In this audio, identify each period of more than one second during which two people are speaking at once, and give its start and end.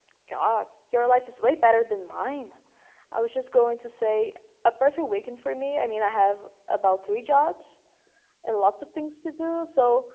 none

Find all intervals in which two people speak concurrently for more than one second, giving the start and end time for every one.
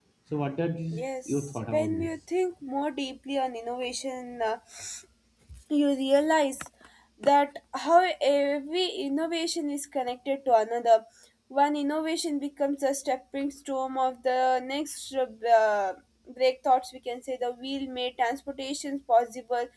0.9-2.2

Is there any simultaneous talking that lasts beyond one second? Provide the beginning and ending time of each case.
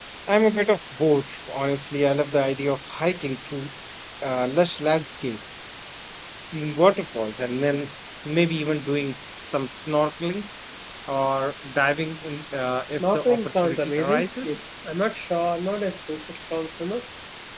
12.8-14.6

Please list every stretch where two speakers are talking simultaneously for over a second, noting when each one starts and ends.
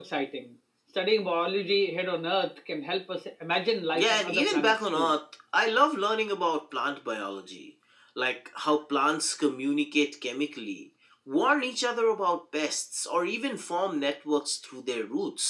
3.9-5.1

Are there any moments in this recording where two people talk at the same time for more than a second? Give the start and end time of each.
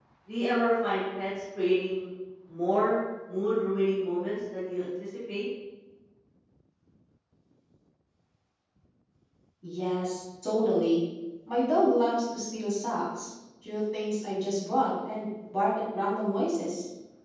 none

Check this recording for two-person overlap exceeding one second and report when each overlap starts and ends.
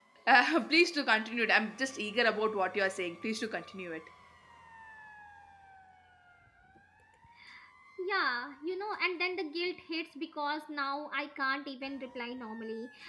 none

